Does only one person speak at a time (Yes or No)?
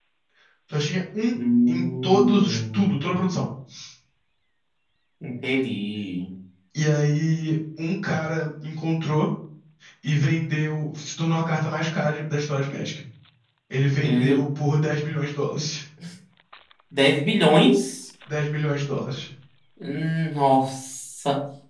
No